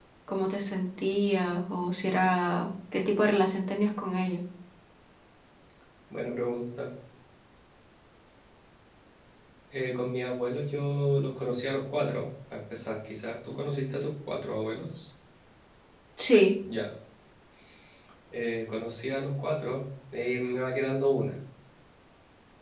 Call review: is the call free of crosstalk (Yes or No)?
Yes